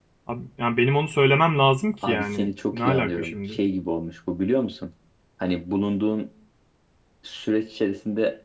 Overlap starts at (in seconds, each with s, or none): 2.0 s